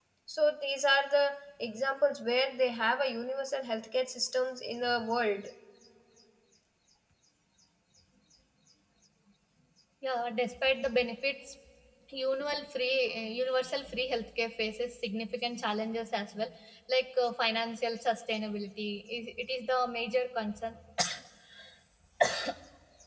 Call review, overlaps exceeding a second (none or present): none